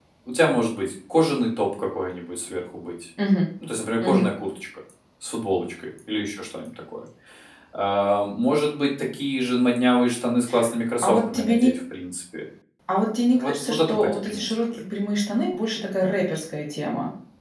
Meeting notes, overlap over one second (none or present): present